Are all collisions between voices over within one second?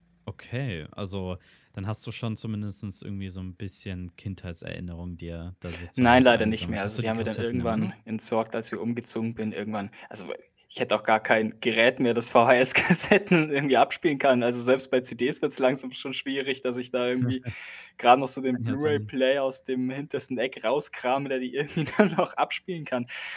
No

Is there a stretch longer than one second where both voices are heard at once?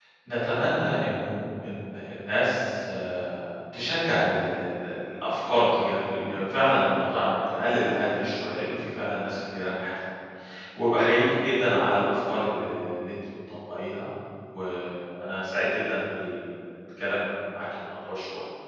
No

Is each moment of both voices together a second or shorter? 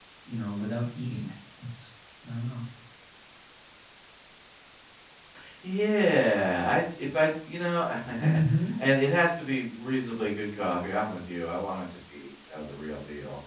Yes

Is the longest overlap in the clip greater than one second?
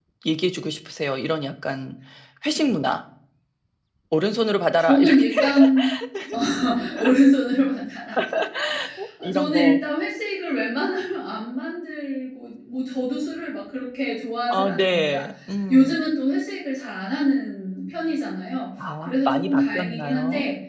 Yes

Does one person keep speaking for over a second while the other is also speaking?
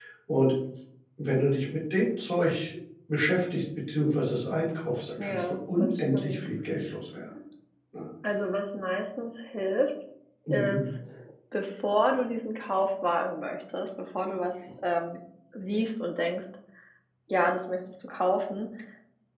Yes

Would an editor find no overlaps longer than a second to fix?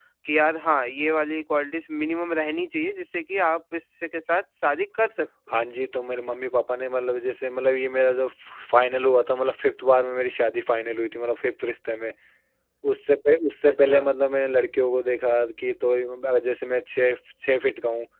Yes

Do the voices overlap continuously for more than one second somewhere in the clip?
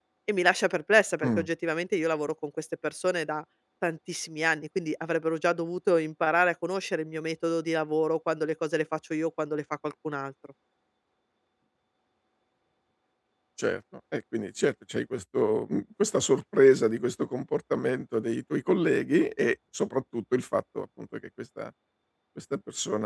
No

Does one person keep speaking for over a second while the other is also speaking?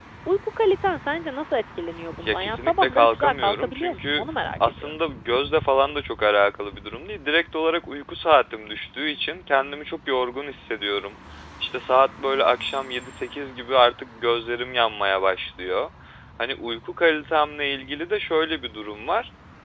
Yes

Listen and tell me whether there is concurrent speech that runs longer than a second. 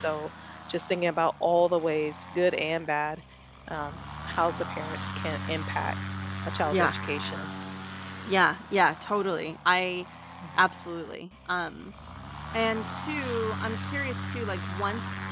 No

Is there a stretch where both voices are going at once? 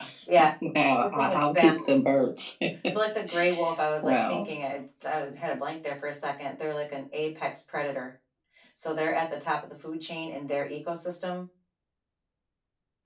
Yes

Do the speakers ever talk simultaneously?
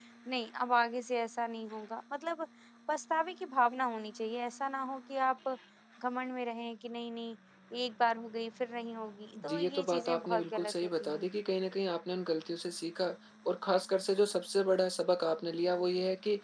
Yes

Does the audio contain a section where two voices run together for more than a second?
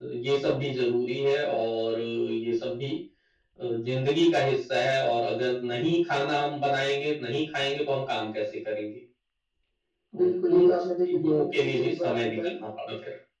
Yes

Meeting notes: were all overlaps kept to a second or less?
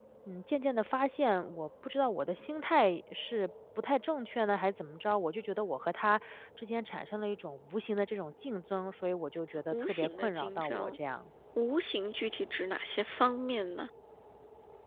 No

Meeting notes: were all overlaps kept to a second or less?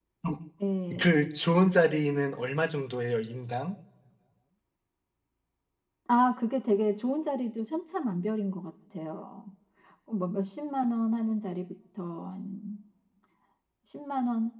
Yes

